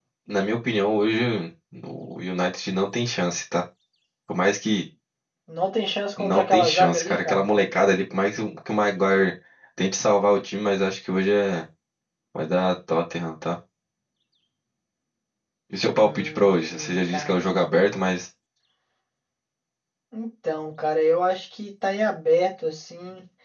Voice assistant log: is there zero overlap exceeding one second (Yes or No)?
No